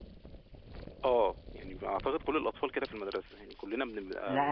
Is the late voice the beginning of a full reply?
Yes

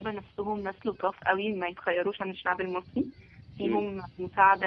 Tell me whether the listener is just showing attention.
Yes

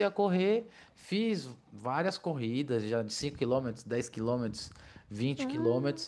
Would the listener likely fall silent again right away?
Yes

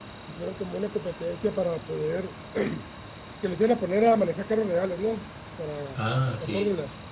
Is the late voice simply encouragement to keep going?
No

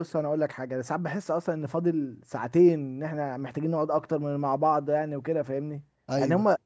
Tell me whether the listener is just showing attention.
Yes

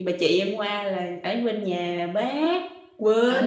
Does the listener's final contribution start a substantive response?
Yes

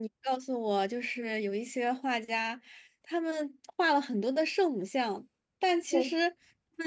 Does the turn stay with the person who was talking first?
Yes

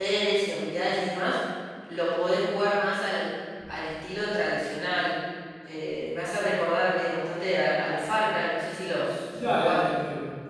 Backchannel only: No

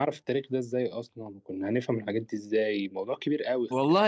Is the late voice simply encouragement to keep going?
No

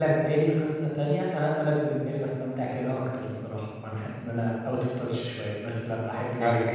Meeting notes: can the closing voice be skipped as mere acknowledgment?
No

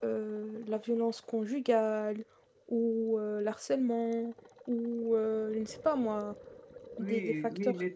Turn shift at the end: Yes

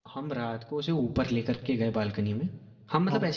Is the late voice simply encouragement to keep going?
Yes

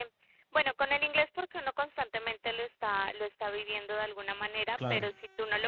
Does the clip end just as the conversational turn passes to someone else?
No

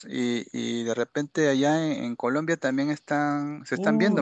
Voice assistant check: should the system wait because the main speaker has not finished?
No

